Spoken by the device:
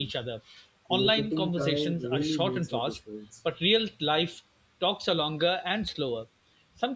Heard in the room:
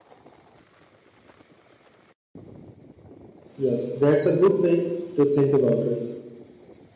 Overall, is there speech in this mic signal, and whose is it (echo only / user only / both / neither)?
user only